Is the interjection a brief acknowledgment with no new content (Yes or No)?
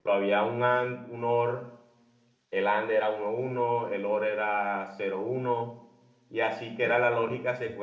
Yes